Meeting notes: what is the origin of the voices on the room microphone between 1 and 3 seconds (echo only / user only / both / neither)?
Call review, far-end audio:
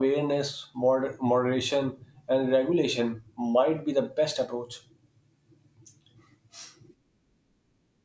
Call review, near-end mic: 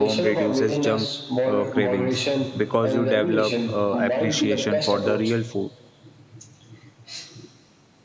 both